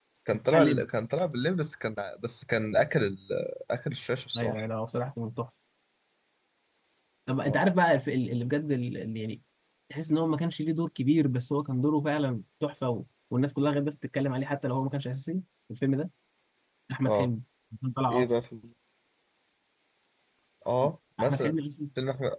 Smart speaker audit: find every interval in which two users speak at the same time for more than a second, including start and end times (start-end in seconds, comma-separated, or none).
none